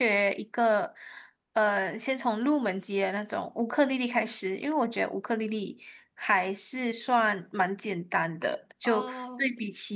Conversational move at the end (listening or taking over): listening